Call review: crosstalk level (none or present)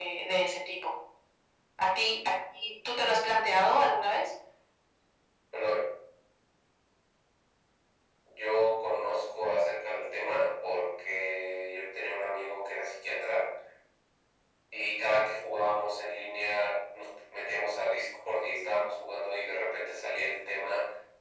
none